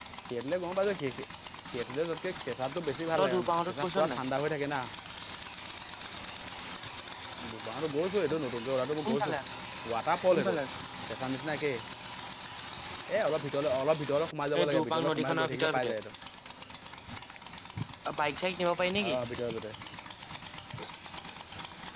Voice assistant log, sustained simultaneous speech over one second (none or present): present